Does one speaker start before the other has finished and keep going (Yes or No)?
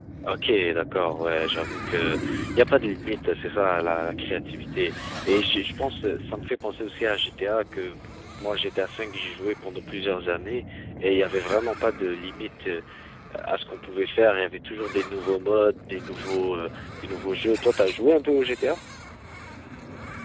No